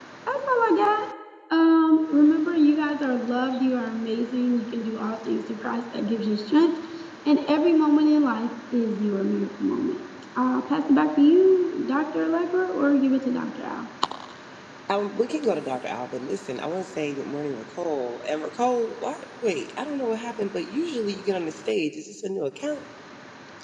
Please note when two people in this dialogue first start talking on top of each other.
none

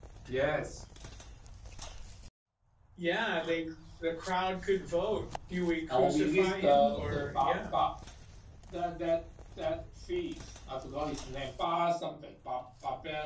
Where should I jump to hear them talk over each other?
5.9 s

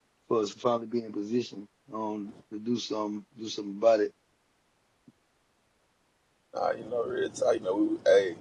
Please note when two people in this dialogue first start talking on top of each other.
none

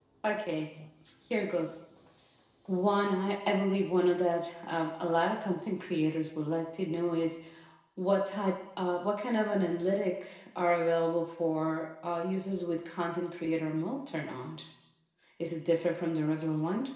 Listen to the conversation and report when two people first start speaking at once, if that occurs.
none

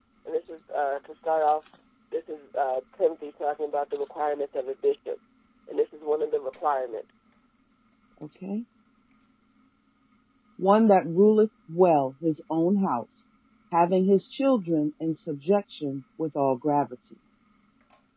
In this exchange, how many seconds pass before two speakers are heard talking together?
none

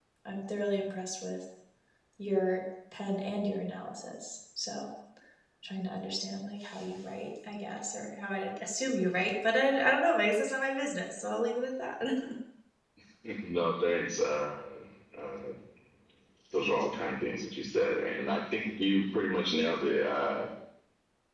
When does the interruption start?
none

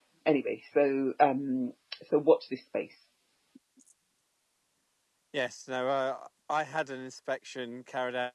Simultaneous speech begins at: none

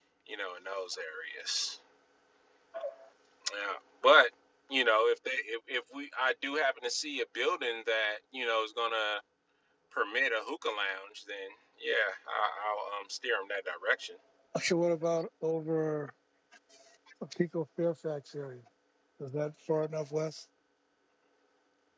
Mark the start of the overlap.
none

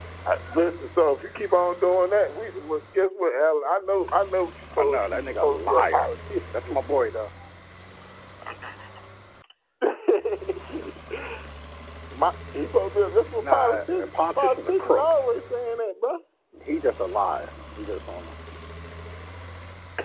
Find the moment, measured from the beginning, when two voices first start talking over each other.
4.8 s

